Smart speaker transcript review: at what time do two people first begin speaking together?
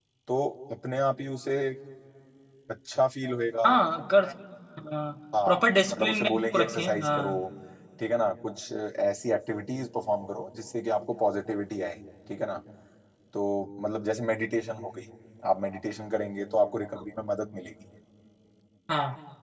5 s

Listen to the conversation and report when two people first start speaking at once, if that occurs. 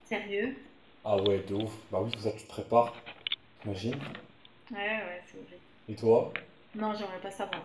none

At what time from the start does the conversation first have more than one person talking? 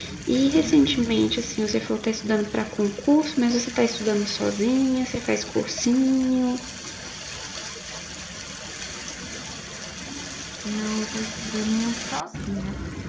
none

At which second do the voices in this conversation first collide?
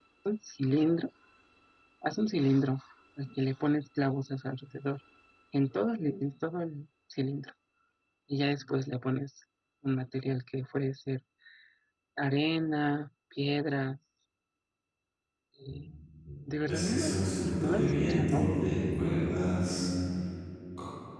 17 s

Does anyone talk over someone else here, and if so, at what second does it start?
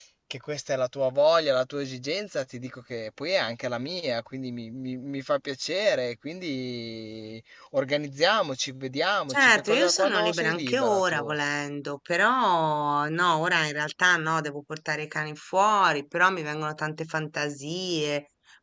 9 s

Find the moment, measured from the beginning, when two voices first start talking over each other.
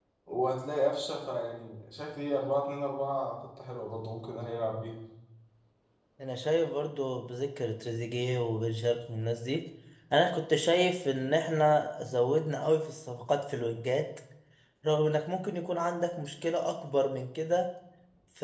none

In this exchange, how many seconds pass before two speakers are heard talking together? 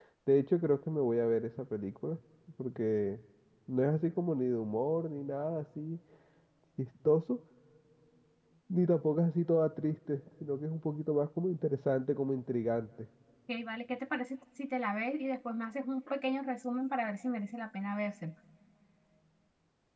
none

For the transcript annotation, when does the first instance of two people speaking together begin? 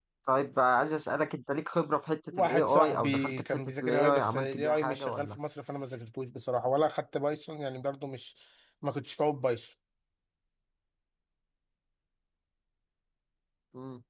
2 s

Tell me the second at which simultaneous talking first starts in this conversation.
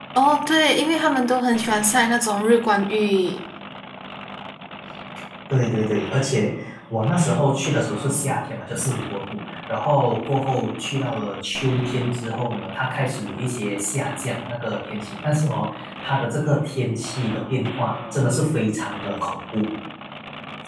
none

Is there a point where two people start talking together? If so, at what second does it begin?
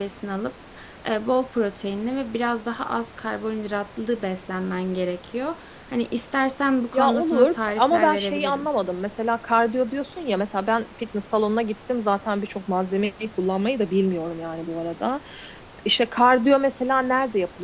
7 s

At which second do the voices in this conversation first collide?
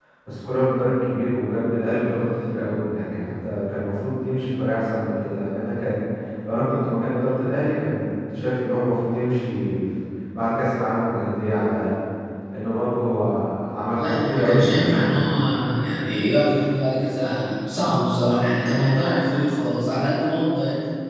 14 s

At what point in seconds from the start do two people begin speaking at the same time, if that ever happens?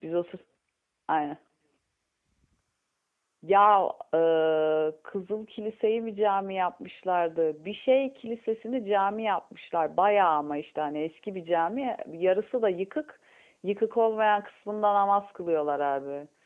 none

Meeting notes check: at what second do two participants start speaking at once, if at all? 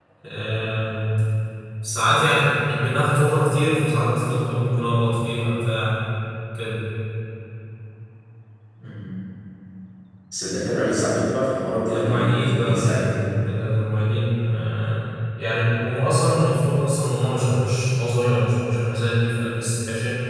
12 s

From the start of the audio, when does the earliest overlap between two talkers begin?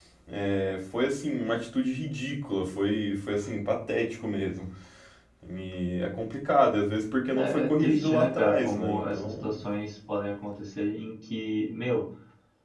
7 s

